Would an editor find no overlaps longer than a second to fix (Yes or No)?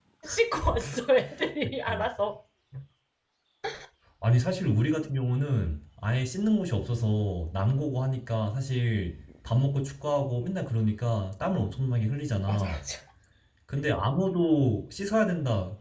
Yes